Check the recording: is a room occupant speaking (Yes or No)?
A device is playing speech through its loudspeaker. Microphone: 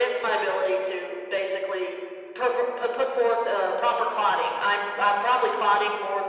No